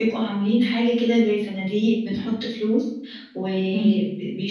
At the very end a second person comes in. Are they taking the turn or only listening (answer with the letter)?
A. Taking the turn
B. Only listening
B